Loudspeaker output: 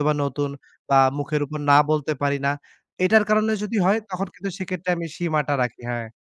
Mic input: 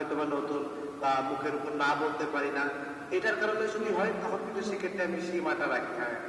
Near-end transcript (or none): হ্যাঁ, একটু নতুন।